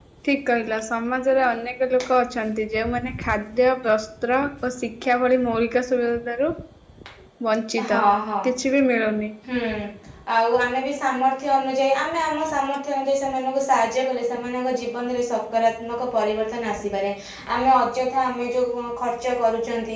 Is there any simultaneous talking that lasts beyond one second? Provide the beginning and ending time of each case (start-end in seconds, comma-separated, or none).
none